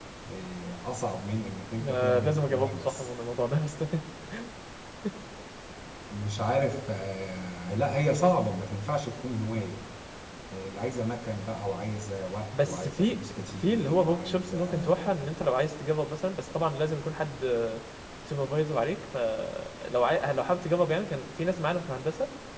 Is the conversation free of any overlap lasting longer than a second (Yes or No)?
No